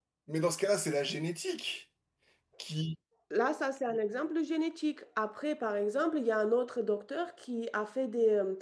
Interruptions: none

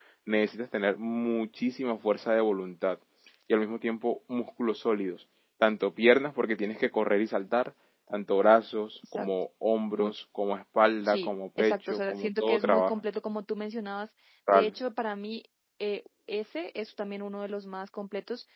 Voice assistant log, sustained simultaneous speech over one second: present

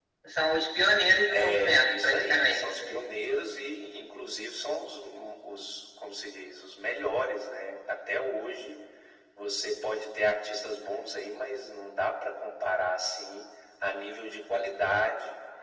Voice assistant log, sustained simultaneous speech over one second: present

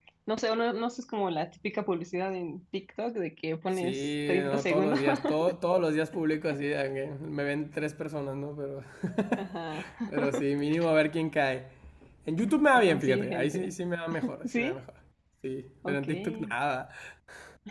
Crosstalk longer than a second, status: present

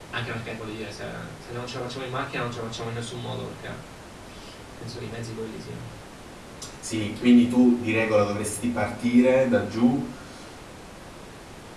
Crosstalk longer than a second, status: none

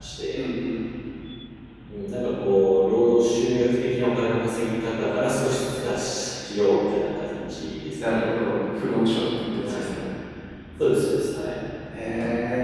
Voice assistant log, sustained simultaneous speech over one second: none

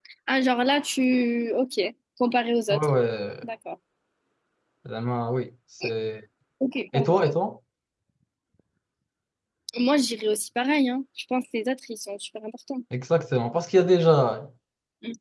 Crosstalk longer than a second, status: none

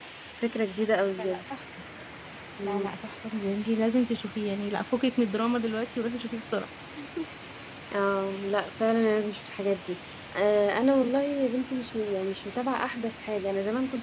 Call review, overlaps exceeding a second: none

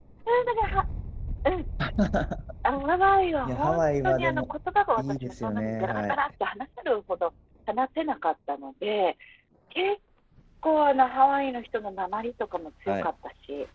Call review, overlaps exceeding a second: present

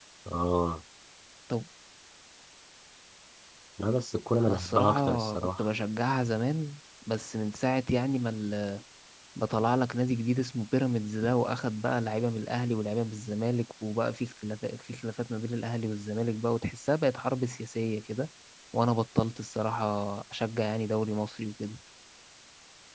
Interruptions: present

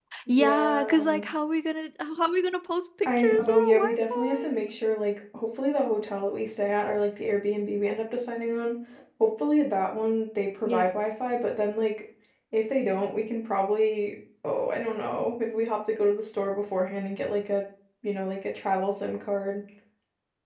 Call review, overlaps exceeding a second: present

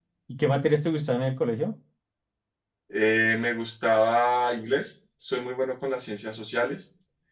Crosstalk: none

